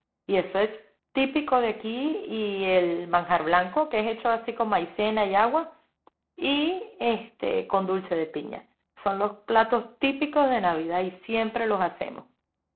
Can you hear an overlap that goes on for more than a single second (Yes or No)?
No